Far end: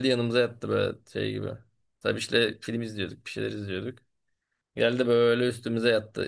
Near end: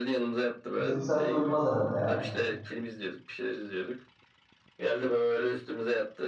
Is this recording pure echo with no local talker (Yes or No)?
No